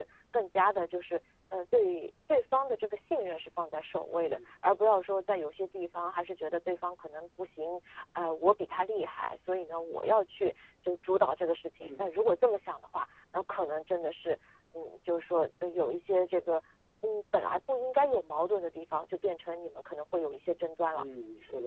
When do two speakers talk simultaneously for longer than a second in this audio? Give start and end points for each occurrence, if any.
none

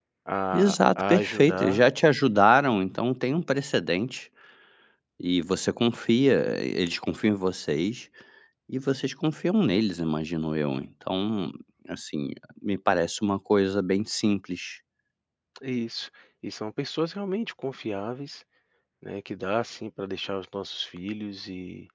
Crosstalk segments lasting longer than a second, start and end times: 0.5-1.8

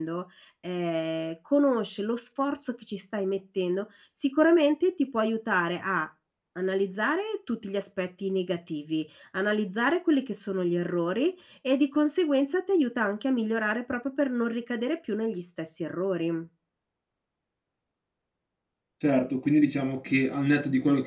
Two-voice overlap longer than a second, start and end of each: none

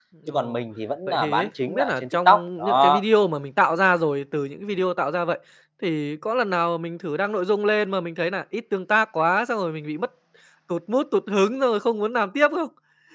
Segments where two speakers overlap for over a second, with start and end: 1.1-3.0

